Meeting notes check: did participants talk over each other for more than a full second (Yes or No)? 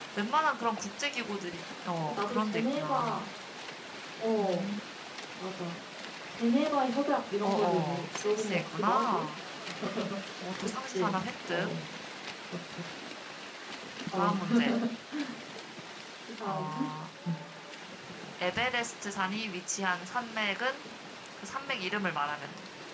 Yes